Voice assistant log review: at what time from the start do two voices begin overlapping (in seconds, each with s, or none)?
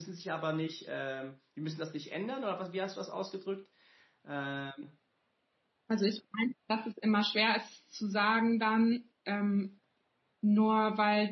none